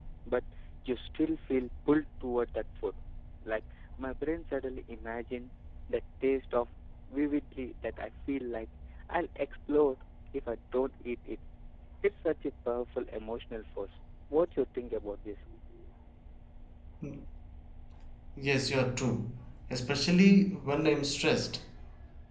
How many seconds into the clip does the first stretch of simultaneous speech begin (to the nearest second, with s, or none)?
none